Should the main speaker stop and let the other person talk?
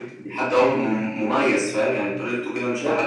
Yes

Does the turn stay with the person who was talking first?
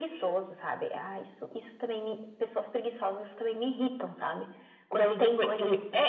No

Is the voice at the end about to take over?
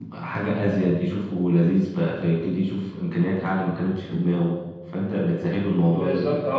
Yes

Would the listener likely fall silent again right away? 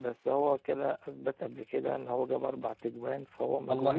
No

